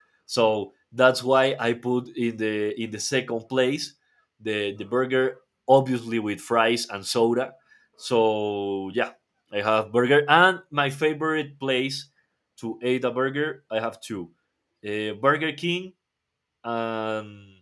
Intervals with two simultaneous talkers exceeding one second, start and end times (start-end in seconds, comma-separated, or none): none